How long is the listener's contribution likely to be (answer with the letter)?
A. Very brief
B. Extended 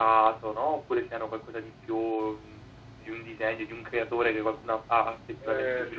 B